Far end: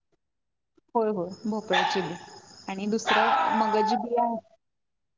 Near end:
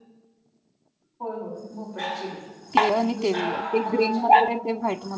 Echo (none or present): present